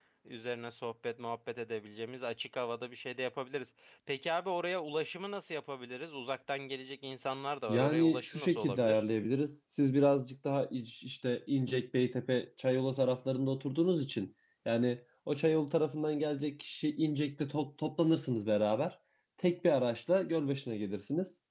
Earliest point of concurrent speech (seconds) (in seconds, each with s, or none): 7.7 s